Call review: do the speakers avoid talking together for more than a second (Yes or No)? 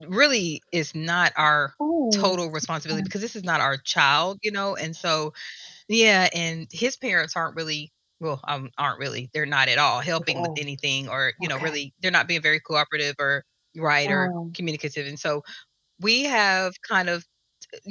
Yes